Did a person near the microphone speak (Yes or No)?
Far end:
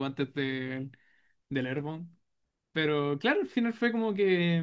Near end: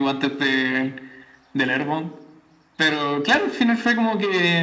No